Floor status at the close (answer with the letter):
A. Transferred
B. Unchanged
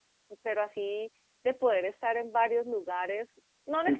A